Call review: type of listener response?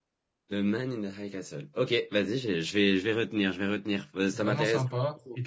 taking over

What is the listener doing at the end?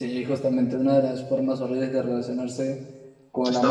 listening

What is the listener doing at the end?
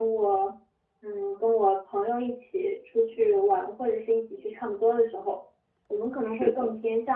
listening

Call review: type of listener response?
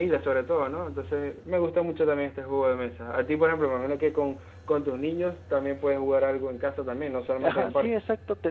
taking over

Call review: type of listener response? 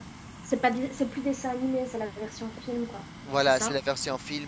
taking over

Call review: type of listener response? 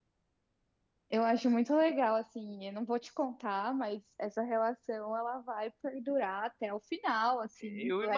taking over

